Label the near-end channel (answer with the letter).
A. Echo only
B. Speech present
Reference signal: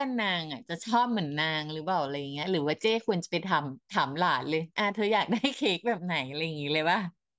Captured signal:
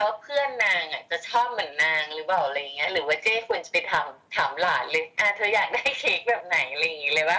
A